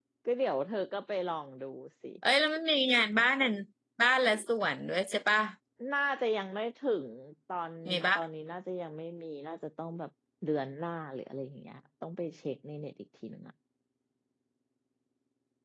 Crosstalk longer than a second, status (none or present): none